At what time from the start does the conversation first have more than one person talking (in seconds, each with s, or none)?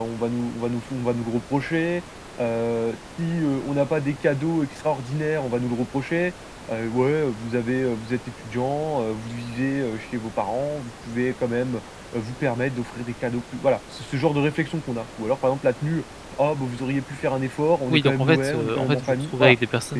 17.9 s